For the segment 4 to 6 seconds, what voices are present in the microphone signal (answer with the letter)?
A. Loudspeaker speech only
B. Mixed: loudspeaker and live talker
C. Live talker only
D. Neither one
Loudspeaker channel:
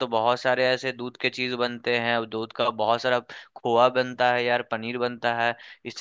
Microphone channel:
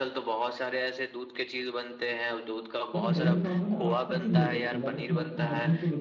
B